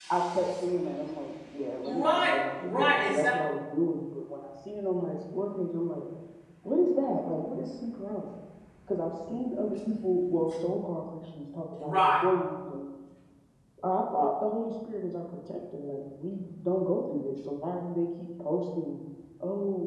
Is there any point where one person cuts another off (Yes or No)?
Yes